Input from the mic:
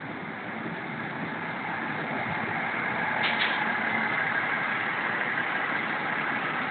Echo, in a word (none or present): none